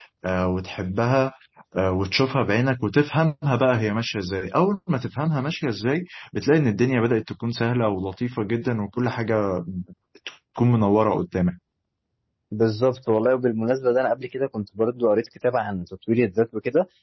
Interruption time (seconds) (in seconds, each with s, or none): none